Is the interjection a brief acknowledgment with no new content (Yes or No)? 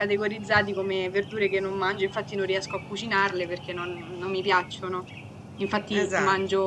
Yes